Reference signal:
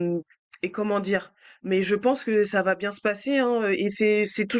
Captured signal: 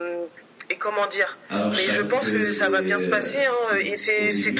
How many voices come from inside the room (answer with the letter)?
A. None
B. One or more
B